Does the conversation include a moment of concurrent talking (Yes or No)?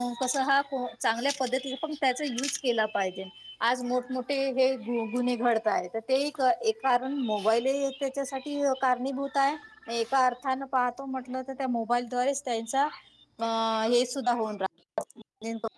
No